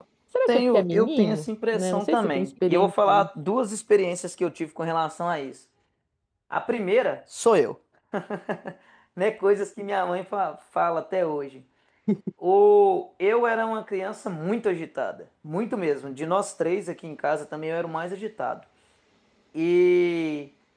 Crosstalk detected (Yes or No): Yes